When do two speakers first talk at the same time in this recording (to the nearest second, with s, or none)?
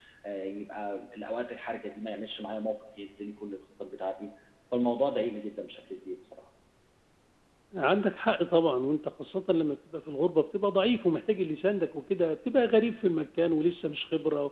none